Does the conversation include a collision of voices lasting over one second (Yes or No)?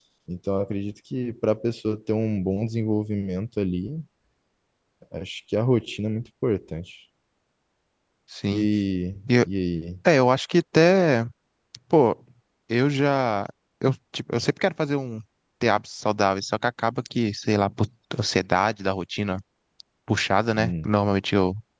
No